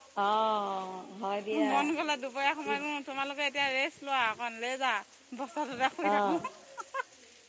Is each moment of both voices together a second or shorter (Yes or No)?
Yes